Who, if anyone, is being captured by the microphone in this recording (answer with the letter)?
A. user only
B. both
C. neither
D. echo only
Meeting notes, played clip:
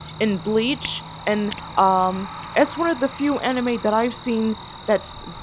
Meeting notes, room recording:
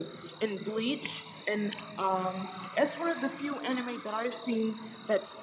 D